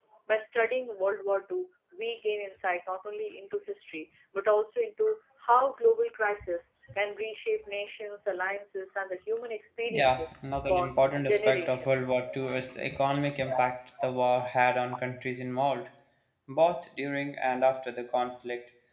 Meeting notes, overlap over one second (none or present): present